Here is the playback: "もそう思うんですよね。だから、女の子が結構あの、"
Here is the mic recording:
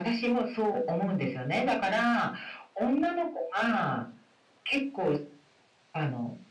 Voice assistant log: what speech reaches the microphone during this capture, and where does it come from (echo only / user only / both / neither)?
echo only